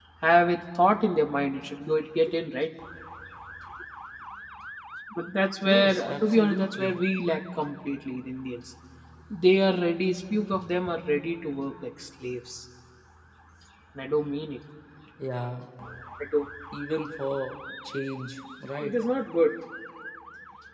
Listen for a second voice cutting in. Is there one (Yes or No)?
Yes